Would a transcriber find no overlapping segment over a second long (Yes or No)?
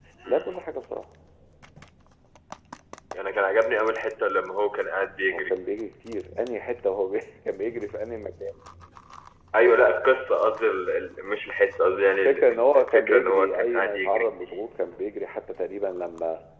No